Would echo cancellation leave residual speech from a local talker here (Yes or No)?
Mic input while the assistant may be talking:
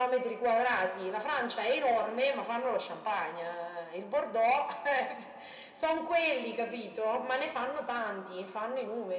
No